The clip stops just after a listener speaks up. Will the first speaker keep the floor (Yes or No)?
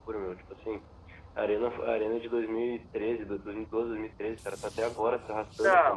No